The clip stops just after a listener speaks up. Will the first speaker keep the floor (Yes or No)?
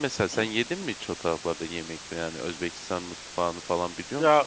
No